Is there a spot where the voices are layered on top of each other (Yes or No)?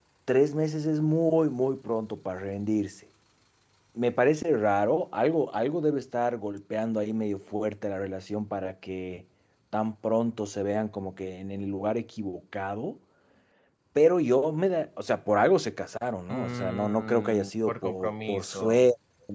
Yes